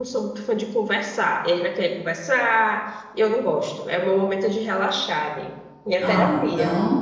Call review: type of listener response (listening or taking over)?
taking over